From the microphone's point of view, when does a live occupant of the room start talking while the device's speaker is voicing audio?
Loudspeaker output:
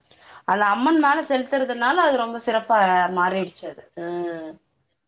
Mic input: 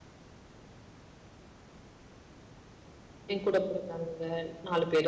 3 s

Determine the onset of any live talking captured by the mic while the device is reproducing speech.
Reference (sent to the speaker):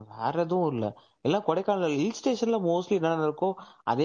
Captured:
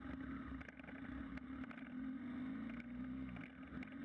none

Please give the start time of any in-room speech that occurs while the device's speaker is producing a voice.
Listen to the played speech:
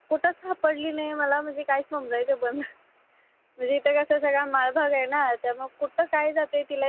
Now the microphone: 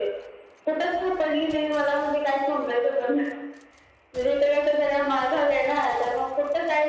none

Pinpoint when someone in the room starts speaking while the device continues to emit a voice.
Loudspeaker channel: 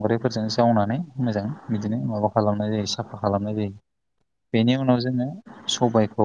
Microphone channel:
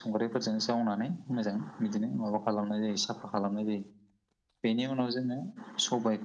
none

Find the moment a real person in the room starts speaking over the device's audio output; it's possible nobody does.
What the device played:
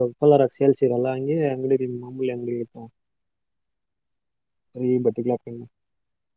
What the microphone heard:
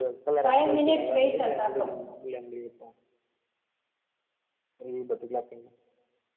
0 s

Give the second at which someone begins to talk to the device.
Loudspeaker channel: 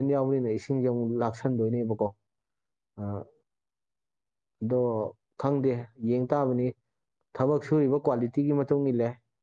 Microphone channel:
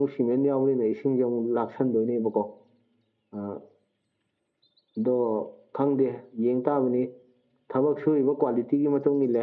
none

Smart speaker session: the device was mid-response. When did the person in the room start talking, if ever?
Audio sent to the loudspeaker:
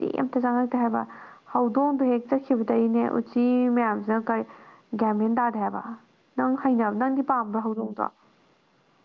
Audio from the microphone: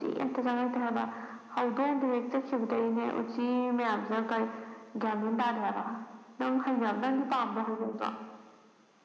none

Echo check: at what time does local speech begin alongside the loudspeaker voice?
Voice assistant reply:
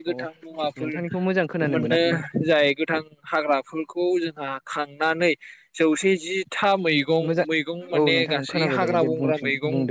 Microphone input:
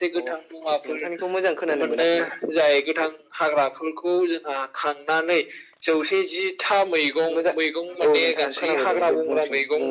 none

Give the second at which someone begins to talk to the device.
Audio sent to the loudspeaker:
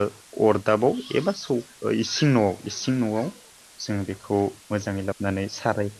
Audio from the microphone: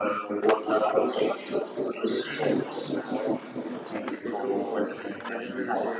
4 s

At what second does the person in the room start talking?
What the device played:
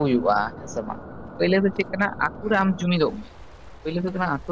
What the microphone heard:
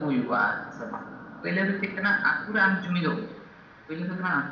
none

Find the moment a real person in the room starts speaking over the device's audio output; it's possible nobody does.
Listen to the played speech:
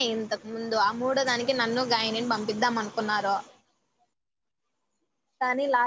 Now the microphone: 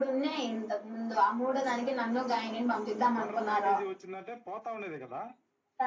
3 s

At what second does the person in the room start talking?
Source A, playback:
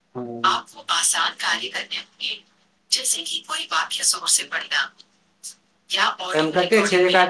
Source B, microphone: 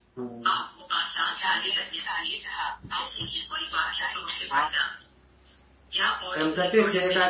1 s

